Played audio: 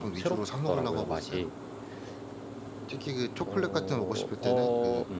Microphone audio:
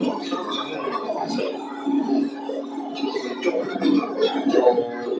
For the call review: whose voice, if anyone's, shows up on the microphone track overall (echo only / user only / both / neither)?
echo only